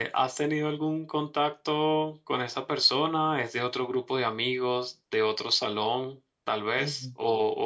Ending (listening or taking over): listening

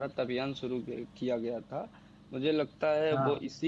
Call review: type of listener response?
listening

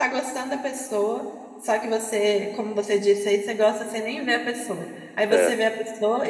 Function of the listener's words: listening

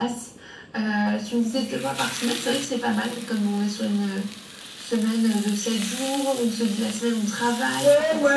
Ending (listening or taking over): taking over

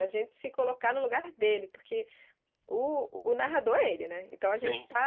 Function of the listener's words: listening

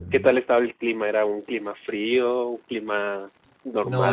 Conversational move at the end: taking over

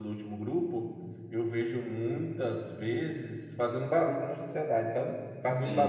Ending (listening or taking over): taking over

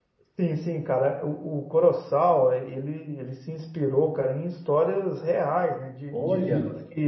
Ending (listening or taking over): listening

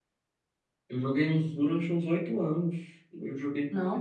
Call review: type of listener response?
listening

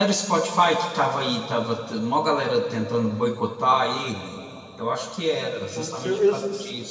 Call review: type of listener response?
taking over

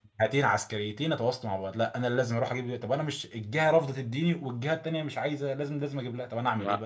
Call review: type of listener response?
taking over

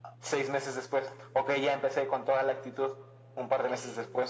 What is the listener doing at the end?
listening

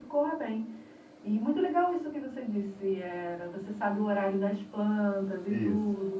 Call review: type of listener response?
listening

